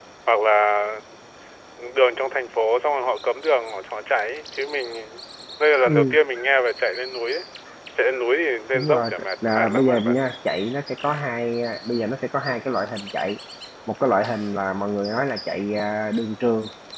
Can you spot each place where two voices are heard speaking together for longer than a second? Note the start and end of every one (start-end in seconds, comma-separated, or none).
8.7-10.3